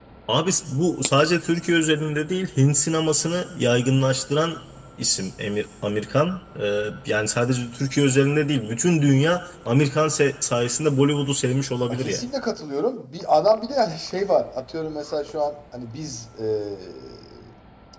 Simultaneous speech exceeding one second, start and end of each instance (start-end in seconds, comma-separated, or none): none